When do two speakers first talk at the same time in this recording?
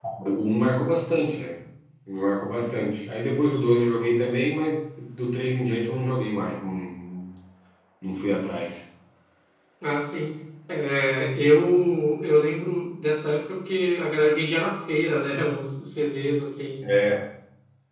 none

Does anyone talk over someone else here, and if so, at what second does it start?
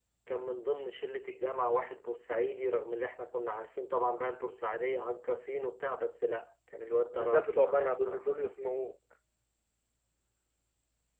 7 s

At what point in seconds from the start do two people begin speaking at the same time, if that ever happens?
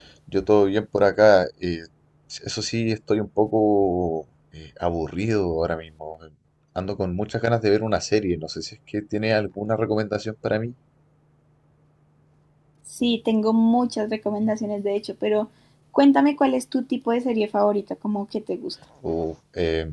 none

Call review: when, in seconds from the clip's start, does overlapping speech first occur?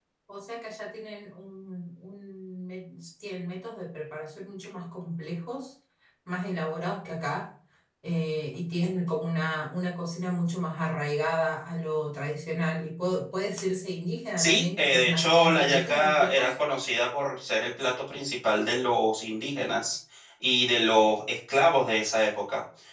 14 s

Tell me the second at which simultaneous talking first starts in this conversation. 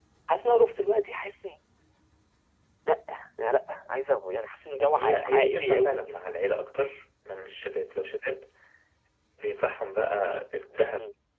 5 s

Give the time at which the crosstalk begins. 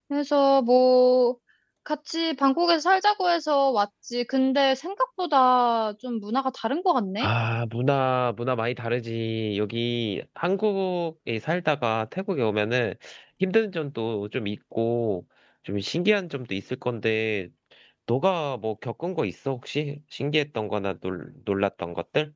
none

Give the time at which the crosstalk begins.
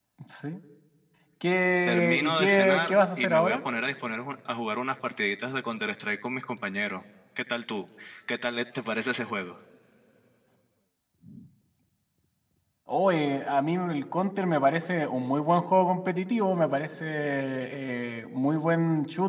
2 s

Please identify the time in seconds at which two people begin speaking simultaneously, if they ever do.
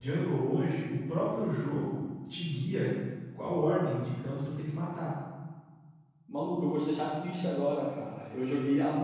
none

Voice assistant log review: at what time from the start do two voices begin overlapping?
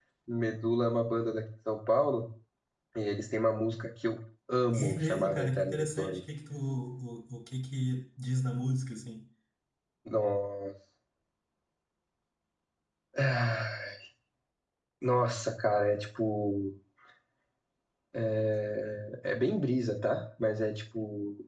5 s

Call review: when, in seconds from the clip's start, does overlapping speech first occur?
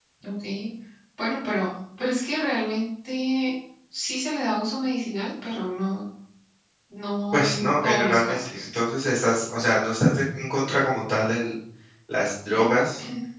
7 s

